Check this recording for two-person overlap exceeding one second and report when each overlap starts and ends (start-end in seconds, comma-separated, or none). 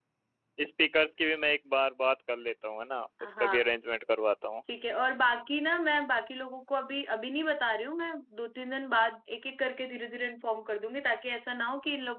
none